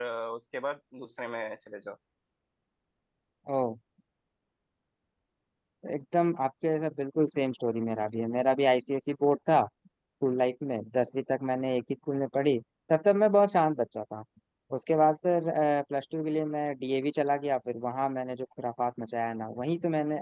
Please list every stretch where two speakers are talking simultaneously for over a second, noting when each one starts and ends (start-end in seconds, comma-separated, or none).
none